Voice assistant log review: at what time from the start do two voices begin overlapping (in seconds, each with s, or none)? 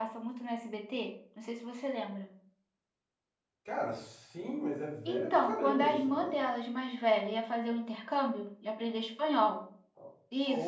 5.0 s